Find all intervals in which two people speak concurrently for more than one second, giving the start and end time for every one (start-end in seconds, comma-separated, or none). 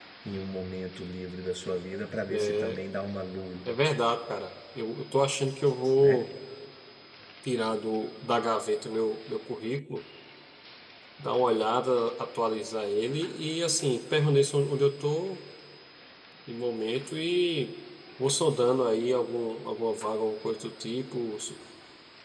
none